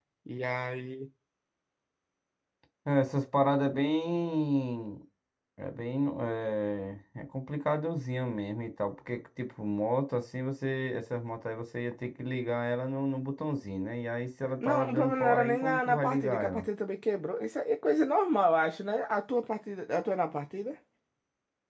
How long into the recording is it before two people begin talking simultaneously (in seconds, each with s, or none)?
14.6 s